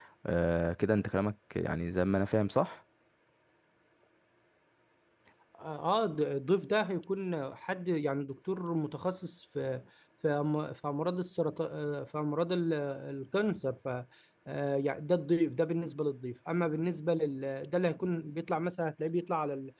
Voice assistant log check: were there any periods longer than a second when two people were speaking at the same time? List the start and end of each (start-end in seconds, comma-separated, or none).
none